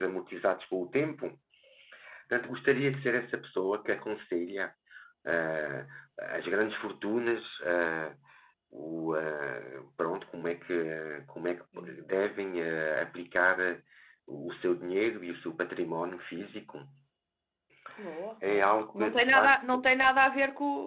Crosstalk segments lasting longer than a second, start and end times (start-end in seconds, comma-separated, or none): 18.5-19.8